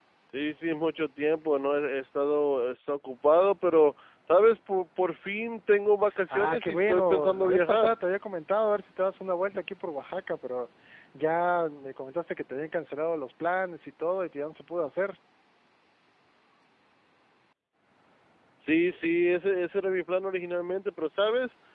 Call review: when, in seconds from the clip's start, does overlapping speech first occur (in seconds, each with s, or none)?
6.3 s